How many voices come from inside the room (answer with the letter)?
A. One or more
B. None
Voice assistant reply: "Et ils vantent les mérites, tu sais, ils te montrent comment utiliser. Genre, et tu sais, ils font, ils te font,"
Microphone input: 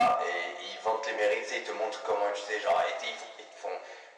B